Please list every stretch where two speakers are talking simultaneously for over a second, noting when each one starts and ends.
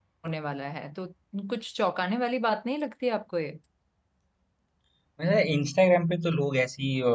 none

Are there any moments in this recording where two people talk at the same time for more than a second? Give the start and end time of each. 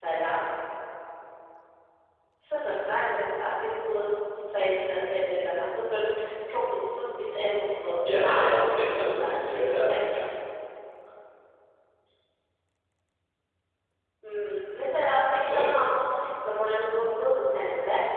8.2-10.0

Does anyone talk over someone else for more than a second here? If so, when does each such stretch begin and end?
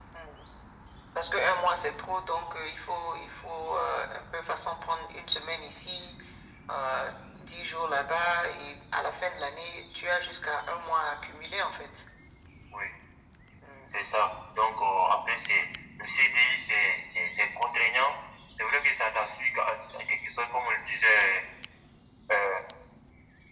none

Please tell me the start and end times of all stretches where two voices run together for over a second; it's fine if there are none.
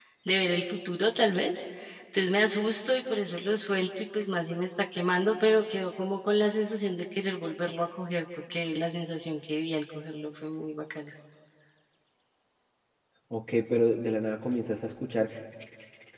none

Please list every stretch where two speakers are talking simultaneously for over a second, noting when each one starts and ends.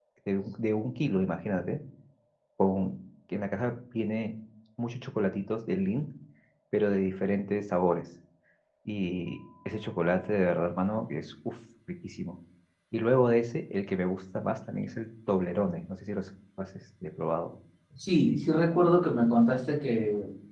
none

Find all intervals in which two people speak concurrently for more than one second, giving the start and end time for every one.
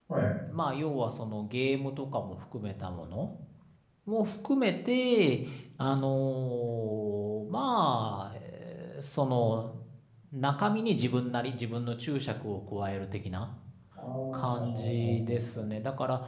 14.3-15.7

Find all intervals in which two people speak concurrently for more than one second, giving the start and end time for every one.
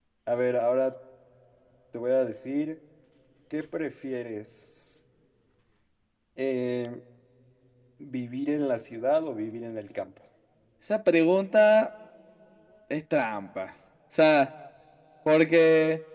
none

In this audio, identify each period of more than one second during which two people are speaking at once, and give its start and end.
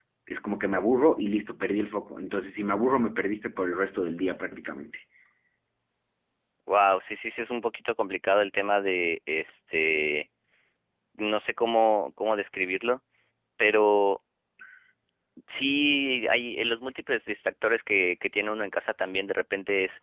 none

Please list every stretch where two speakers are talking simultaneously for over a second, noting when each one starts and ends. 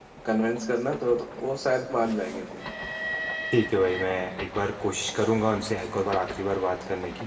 none

